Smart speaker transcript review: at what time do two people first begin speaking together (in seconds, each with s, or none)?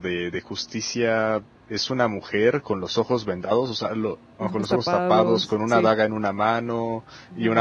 4.4 s